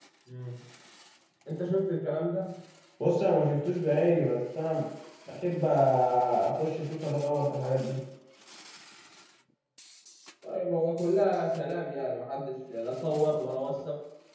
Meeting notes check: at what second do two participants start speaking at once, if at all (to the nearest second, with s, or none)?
none